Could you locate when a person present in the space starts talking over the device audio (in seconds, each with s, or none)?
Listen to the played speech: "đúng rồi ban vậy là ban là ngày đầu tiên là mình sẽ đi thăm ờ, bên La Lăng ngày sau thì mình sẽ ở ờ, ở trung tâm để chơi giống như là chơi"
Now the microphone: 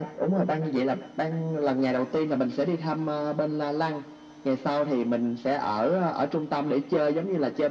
none